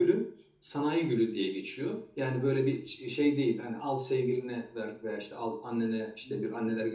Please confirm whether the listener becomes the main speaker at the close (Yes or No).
No